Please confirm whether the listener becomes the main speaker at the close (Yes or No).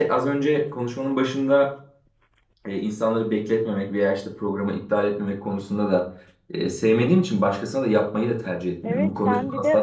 Yes